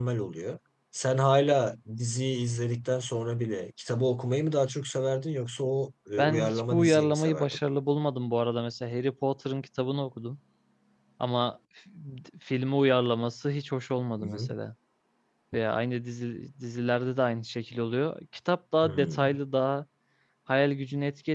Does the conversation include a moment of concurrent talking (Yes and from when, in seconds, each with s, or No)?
Yes, from 6.2 s